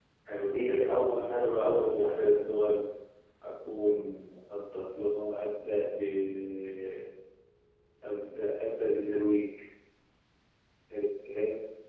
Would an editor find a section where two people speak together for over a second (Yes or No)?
Yes